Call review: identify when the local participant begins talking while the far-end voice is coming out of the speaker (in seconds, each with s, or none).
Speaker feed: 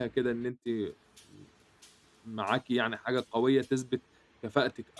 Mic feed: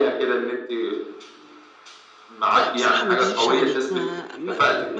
2.5 s